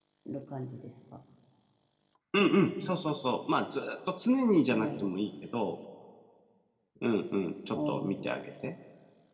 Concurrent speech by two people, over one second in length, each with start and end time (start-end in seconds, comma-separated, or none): none